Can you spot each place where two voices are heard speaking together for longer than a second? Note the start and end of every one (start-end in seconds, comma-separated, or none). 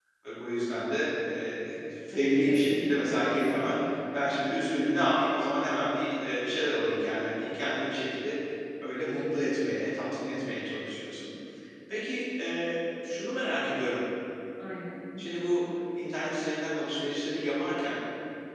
2.4-3.7